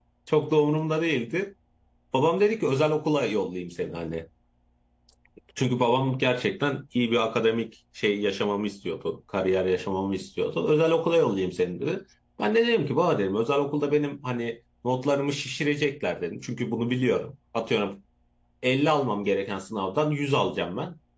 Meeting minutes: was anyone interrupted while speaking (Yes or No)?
No